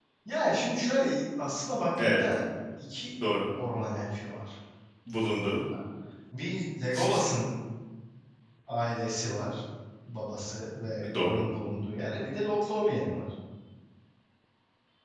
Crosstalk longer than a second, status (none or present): none